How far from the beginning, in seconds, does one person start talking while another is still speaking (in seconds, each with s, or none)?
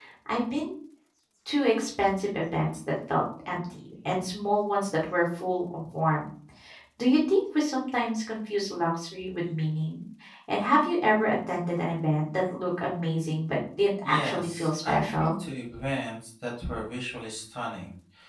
14.0 s